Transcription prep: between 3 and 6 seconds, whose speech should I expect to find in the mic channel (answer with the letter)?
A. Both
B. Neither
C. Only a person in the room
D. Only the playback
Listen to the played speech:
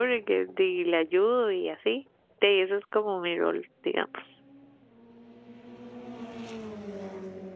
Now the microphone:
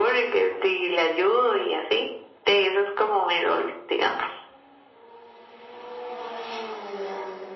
D